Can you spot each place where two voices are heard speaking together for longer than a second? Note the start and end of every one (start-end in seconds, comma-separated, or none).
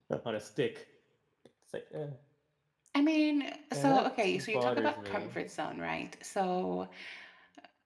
3.7-5.4